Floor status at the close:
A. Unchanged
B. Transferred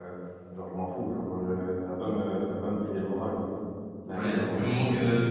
B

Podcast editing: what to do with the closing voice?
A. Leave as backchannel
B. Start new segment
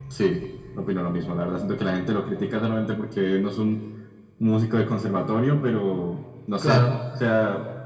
A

